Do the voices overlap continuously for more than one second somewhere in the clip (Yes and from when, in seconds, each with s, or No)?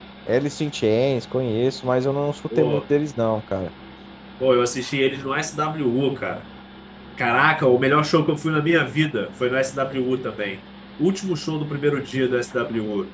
No